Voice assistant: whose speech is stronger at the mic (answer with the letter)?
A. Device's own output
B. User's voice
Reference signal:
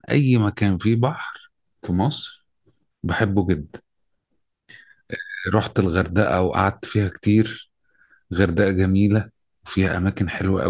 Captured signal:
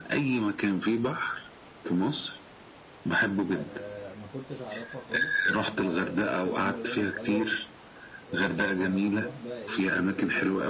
A